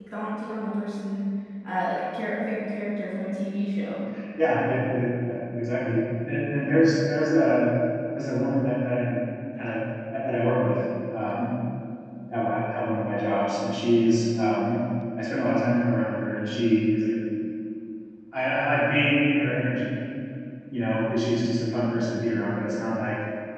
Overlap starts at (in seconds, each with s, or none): none